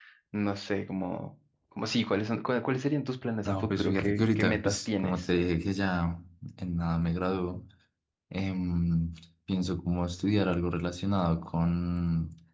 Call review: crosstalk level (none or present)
present